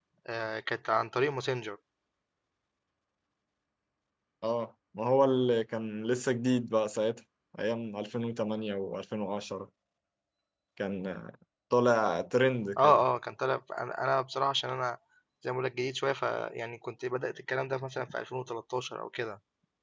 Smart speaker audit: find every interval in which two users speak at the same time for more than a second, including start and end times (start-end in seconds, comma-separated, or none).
none